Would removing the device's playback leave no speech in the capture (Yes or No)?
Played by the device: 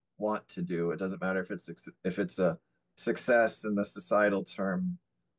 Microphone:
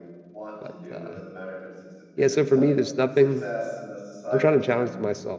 No